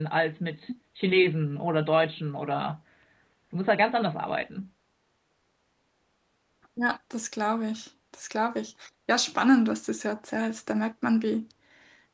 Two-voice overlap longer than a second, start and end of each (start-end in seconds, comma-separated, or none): none